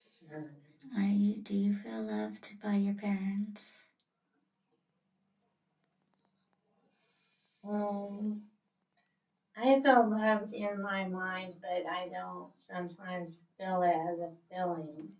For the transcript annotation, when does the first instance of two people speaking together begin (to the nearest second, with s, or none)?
none